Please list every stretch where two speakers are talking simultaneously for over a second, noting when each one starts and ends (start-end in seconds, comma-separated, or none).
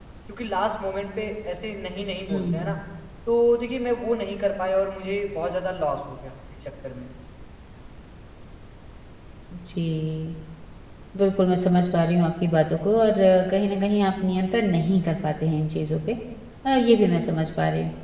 none